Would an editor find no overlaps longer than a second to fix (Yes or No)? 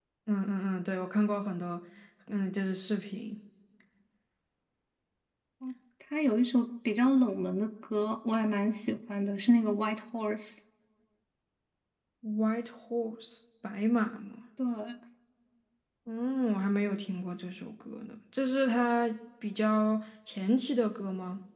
Yes